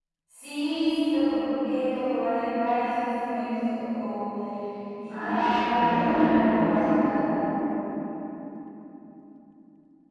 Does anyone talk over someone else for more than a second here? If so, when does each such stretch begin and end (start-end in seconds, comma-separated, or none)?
5.1-7.2